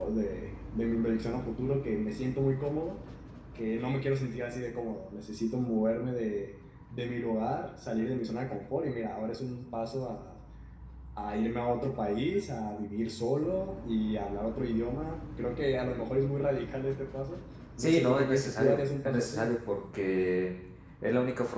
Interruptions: present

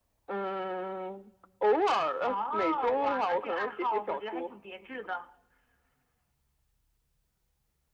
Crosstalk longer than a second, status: present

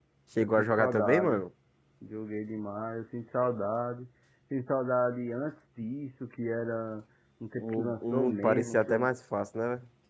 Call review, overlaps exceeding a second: present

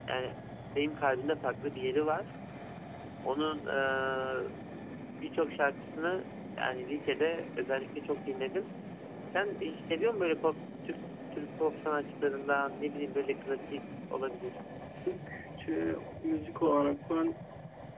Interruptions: none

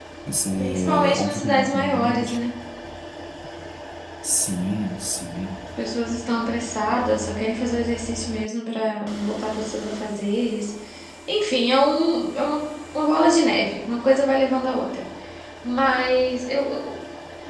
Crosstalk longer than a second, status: present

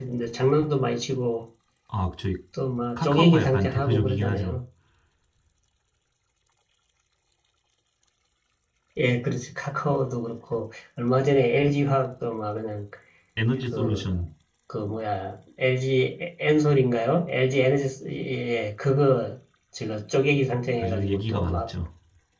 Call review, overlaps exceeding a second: present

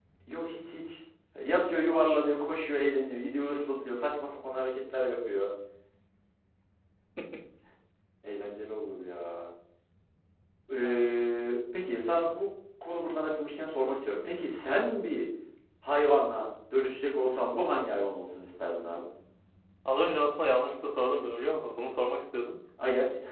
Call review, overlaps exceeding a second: none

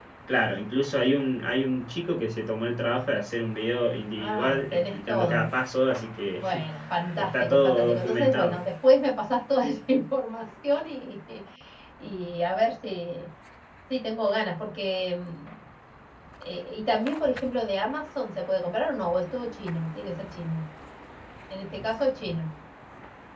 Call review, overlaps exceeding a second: present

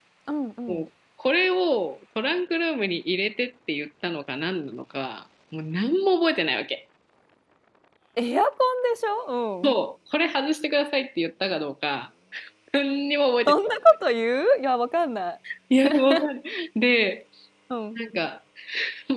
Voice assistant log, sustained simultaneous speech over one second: none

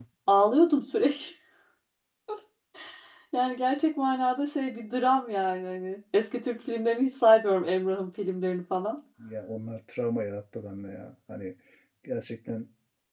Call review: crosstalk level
none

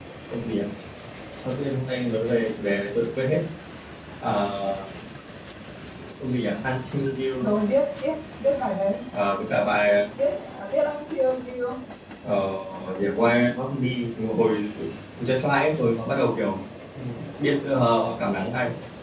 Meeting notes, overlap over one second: none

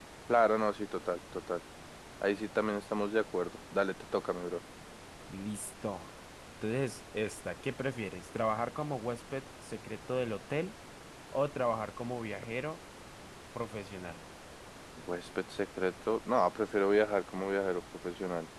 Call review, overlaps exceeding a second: none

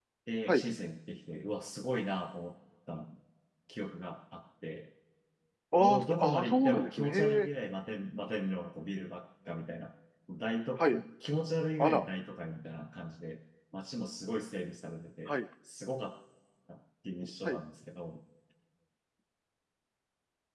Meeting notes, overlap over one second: present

